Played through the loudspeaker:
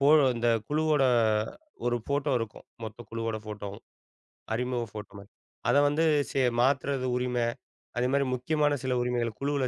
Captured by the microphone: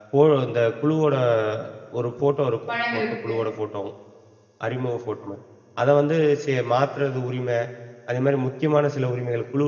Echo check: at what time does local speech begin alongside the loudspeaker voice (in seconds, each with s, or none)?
2.7 s